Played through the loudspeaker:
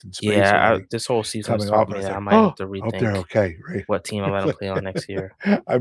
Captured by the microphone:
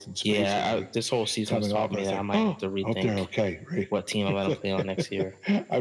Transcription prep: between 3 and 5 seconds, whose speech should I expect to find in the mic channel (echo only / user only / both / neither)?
echo only